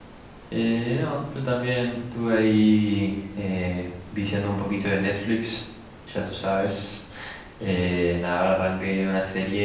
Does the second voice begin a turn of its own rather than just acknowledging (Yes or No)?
No